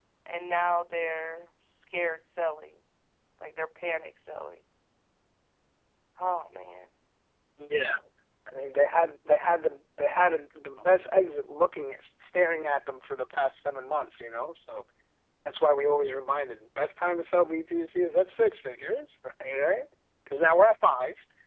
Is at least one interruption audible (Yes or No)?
No